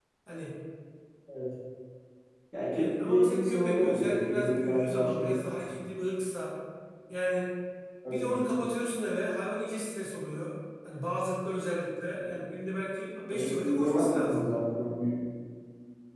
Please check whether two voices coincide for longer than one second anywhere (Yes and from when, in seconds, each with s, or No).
Yes, from 2.7 s